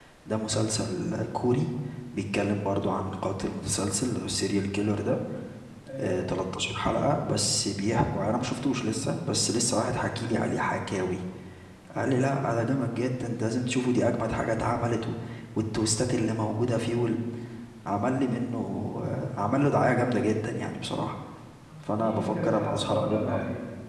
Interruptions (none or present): present